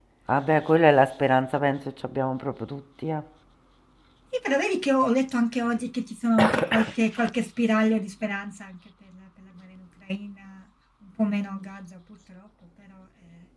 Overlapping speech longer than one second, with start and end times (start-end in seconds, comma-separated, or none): none